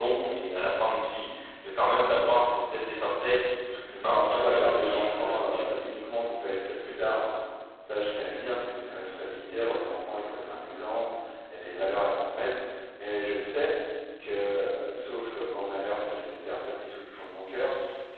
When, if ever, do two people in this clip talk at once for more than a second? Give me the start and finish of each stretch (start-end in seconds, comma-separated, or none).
4.0-5.7